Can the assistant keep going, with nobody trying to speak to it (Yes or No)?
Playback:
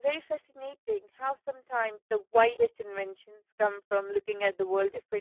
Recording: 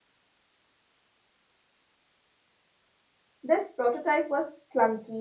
No